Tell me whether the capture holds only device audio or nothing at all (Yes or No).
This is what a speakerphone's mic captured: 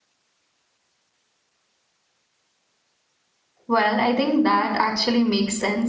No